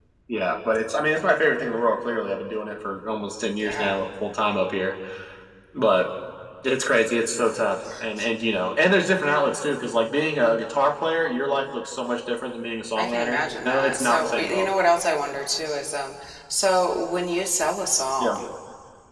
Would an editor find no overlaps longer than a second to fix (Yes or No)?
No